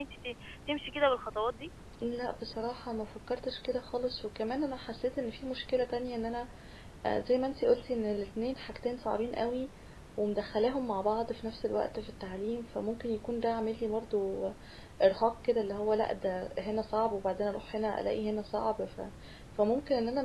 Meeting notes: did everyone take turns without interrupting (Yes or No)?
Yes